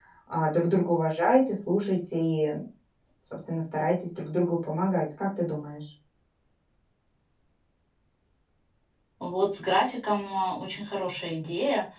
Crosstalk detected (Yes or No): No